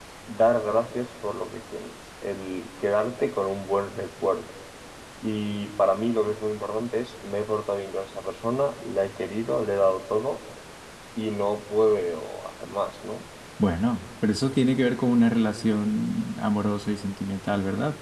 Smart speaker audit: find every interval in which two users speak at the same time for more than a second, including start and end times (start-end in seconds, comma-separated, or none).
none